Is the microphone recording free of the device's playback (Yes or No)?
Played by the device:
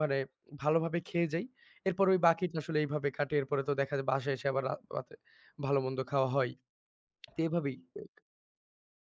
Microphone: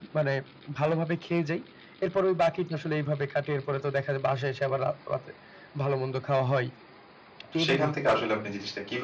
No